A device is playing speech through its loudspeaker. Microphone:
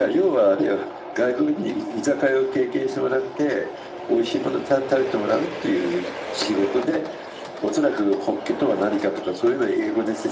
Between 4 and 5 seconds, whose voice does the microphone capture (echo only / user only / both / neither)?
echo only